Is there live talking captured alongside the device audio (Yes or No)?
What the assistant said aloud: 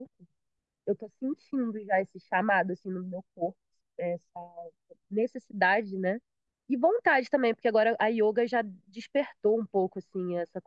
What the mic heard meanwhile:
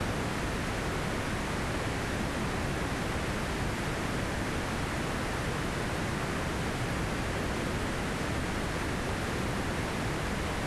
No